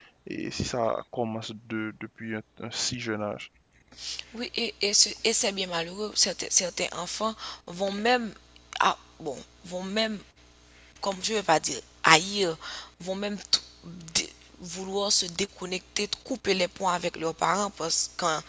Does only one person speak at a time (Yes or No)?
Yes